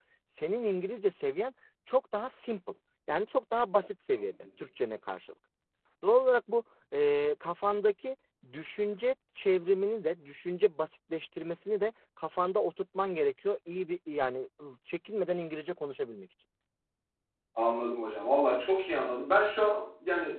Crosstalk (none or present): none